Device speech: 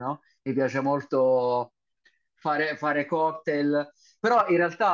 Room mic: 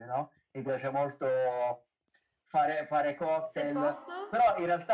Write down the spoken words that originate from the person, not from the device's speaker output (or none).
Se posso,